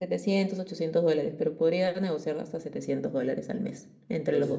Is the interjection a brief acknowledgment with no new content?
No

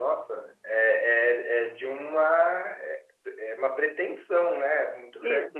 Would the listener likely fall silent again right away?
No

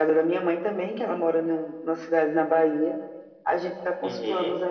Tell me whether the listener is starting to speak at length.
No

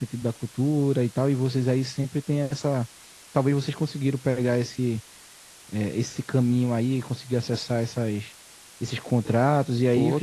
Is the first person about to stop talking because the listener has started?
Yes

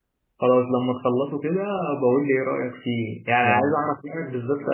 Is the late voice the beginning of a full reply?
No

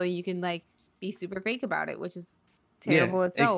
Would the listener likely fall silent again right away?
No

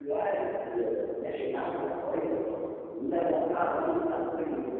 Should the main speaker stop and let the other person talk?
No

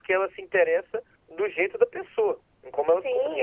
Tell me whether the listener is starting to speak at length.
Yes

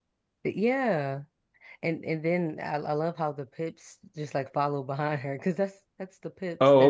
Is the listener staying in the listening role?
No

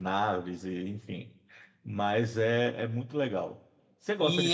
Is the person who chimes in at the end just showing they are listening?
No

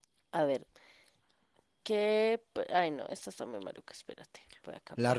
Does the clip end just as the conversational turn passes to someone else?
Yes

